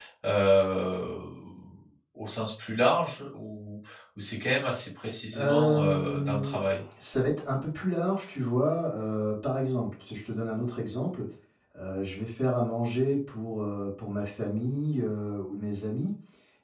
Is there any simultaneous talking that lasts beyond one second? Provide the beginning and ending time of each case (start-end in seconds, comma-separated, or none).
5.3-6.6